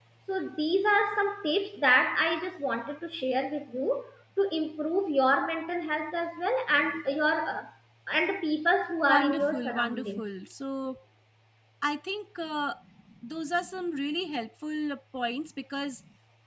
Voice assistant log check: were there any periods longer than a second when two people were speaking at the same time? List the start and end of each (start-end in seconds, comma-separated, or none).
9.0-10.3